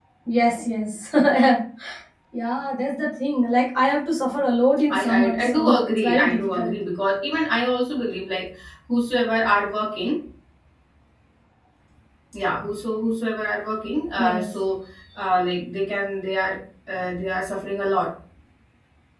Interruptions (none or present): present